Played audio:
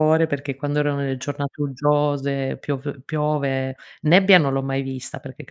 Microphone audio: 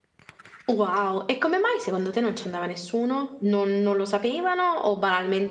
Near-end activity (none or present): present